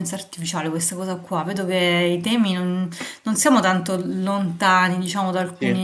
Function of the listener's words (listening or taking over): listening